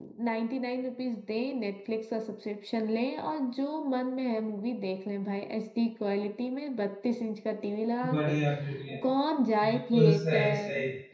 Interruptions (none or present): present